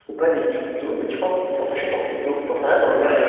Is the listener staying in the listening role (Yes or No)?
Yes